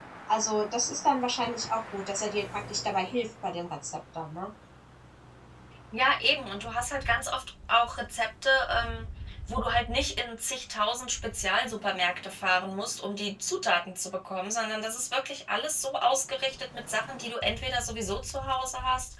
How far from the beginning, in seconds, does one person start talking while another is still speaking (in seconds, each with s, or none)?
none